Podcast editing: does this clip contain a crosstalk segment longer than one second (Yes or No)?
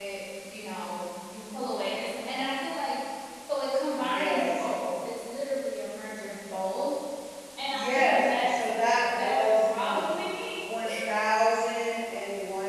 Yes